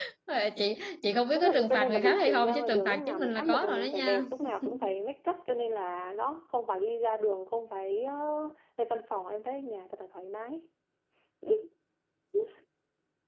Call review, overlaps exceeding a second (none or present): present